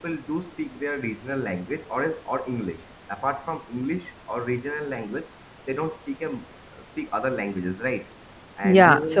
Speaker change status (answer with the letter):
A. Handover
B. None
A